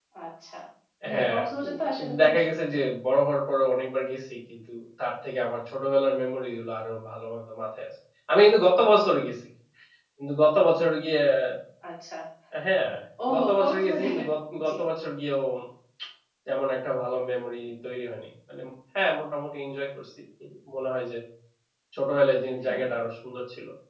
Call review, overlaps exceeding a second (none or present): present